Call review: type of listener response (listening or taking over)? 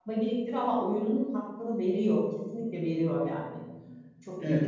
taking over